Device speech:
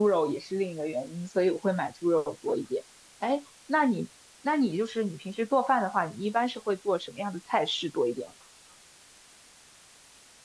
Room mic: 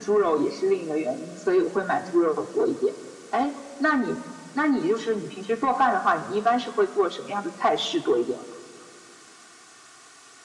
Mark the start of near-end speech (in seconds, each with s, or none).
none